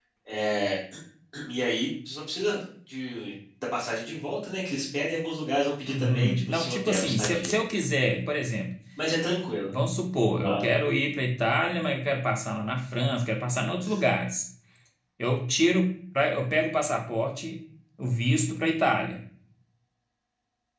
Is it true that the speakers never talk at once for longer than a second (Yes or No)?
No